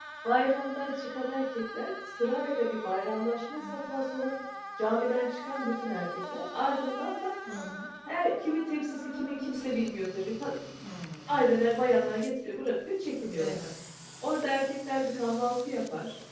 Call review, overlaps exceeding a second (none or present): none